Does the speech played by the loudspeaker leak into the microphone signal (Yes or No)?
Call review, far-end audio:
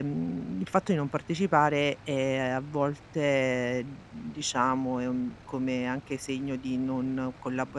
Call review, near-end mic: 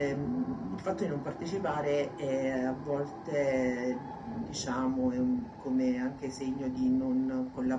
Yes